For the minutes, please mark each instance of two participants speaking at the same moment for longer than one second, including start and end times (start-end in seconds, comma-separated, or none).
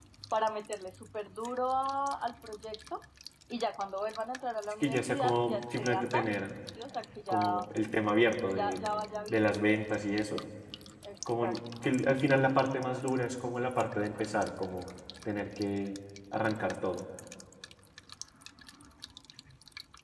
4.8-6.4